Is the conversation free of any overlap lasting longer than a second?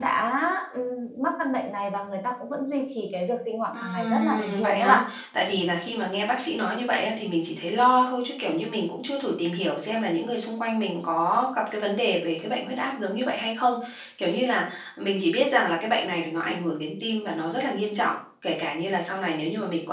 No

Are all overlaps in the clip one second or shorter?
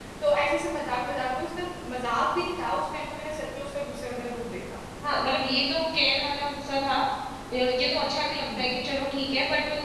Yes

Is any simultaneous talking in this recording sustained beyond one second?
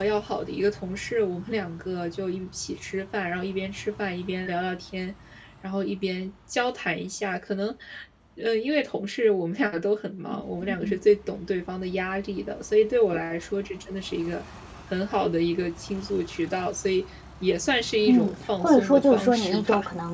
Yes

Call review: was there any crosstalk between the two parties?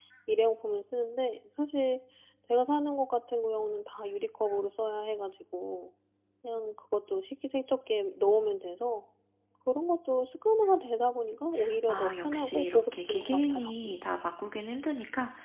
Yes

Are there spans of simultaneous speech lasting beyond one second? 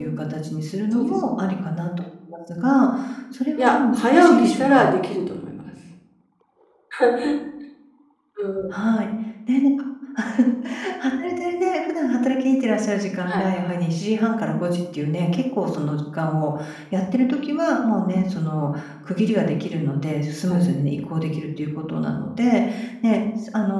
Yes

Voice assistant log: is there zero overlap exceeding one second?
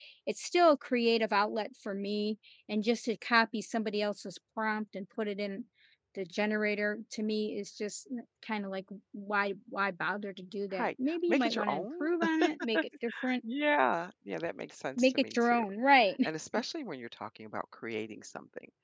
No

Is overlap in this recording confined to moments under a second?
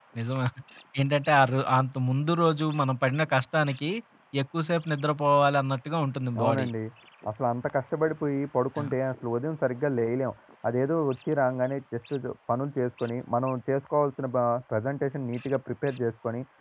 Yes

